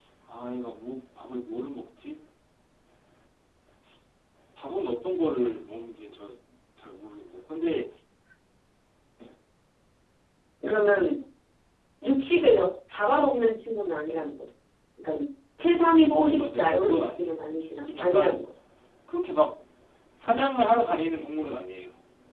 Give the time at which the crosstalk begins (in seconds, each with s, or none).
16.2 s